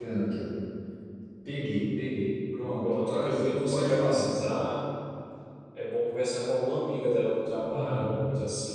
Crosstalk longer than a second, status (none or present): present